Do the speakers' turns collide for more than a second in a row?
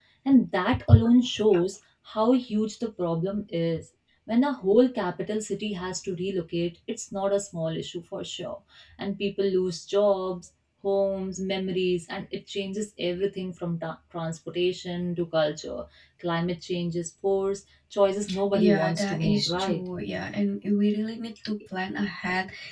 Yes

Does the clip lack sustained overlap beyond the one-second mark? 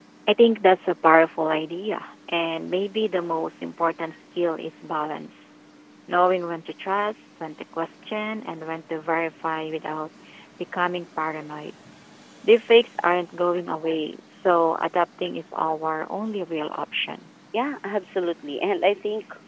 Yes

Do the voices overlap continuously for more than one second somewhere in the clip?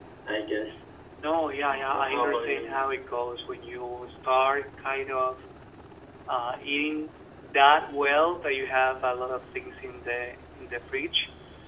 Yes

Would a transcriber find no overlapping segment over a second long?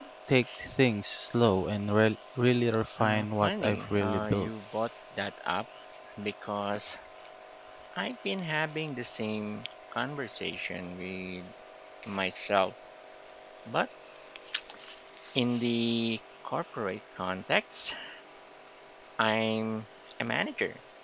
No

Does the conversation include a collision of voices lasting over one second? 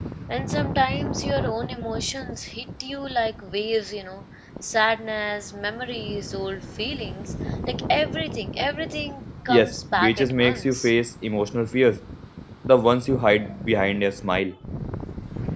Yes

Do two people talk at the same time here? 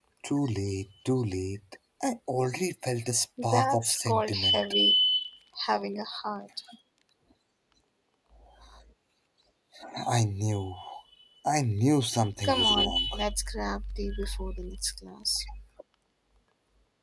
Yes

